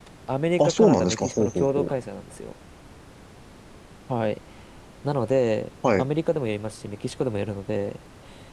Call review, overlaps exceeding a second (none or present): present